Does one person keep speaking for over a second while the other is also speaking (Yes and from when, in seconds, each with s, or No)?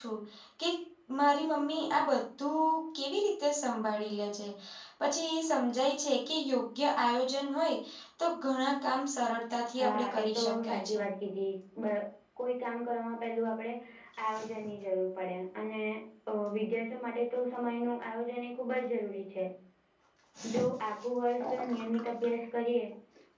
Yes, from 9.8 s